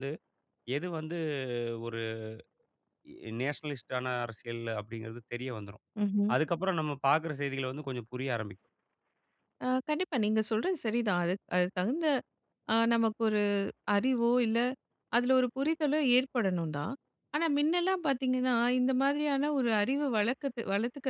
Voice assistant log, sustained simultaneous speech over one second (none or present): none